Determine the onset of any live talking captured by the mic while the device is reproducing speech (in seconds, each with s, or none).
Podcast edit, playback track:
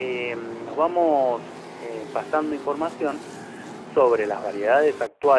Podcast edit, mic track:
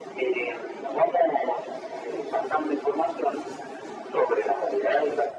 none